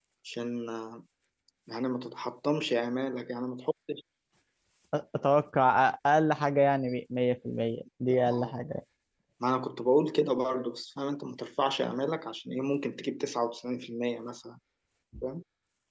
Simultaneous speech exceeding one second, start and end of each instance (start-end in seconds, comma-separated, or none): none